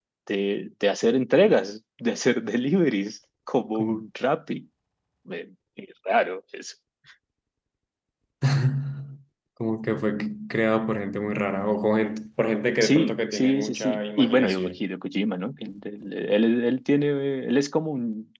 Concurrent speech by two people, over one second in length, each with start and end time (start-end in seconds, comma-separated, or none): 12.8-14.8